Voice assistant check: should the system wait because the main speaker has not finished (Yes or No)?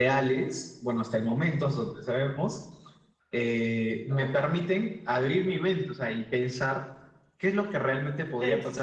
Yes